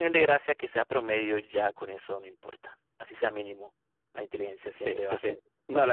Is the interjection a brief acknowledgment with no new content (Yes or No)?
No